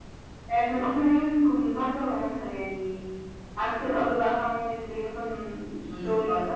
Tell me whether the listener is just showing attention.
Yes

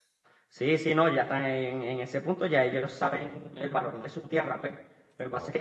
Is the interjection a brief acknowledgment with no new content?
Yes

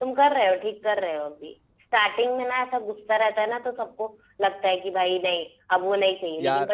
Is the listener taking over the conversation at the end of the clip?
No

